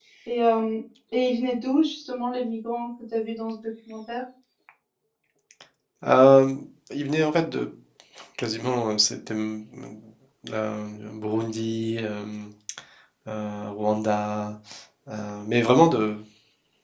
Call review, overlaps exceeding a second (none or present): none